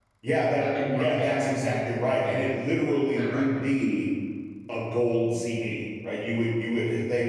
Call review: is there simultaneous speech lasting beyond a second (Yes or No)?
Yes